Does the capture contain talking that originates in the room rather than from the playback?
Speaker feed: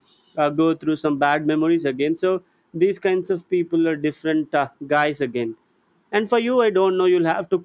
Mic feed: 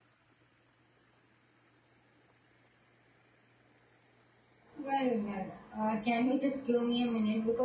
Yes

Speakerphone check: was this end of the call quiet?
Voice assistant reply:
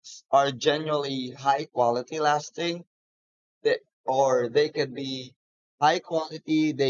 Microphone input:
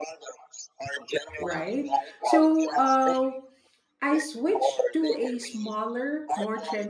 No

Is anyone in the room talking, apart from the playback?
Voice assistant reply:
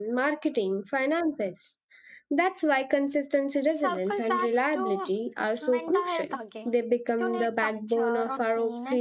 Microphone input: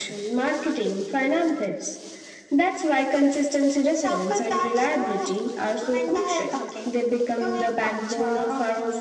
No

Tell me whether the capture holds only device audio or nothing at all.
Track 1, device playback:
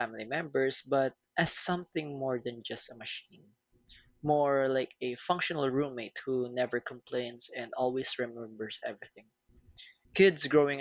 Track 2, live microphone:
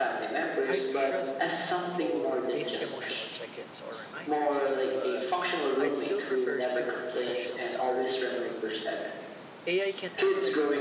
No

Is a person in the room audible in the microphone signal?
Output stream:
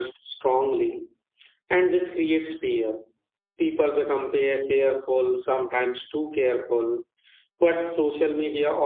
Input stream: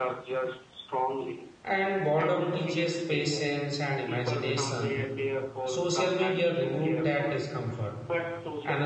Yes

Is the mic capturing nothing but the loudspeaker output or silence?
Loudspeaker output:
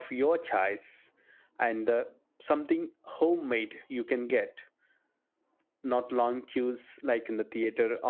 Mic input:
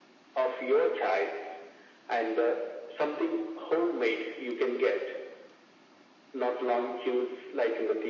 Yes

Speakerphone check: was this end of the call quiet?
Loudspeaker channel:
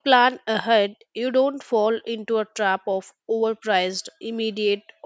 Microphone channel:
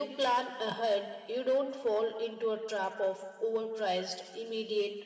Yes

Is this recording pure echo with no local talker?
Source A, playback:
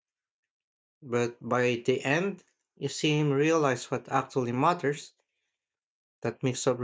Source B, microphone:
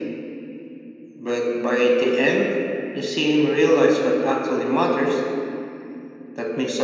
Yes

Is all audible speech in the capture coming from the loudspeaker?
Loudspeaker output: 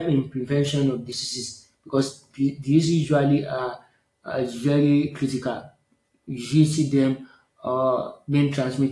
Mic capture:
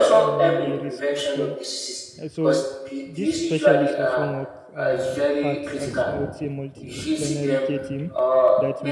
No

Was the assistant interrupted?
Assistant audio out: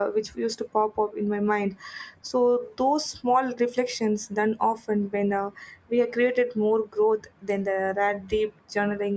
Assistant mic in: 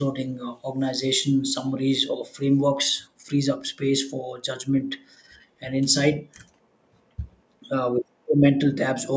Yes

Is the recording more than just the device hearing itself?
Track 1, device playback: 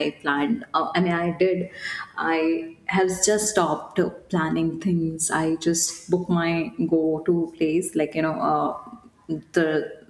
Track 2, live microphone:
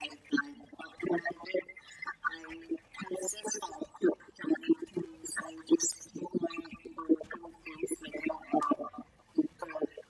No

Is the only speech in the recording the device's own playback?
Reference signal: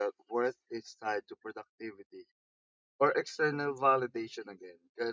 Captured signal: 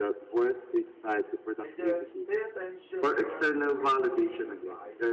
No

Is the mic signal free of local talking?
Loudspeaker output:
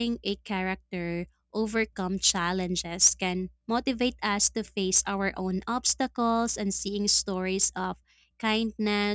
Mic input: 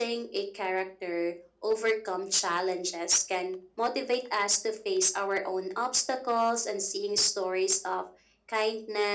Yes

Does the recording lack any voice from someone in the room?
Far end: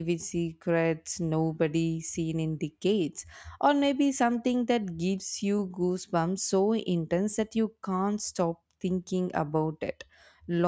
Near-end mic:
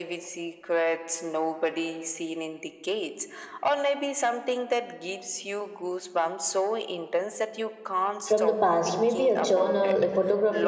No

